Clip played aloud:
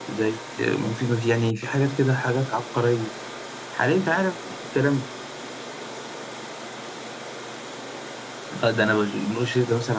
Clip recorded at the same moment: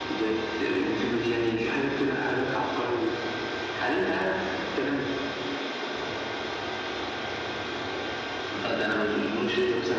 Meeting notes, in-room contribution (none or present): none